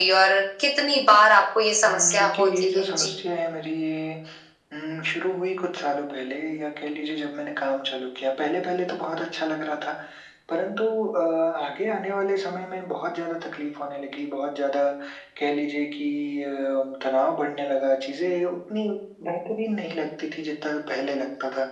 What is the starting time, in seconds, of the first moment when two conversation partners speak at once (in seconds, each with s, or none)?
1.8 s